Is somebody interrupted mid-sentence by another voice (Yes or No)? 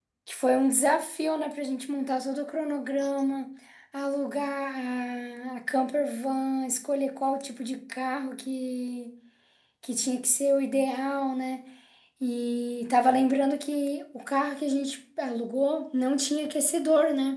No